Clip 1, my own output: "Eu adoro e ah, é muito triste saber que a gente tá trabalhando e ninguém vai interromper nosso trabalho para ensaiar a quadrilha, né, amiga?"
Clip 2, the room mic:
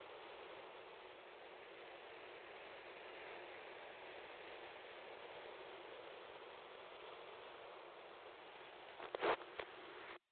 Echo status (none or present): none